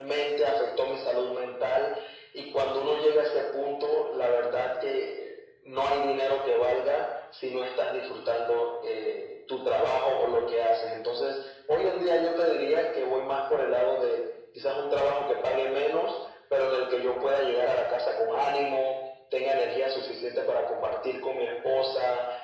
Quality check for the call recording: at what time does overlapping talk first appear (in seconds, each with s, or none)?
none